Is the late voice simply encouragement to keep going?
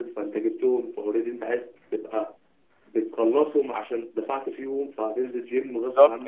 No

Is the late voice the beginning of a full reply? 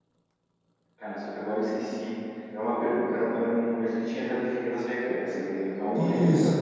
Yes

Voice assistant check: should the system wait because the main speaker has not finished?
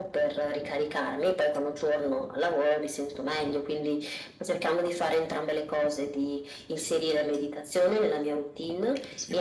Yes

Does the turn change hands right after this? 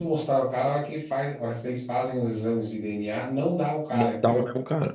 Yes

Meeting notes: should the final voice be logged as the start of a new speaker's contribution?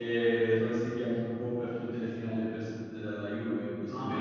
Yes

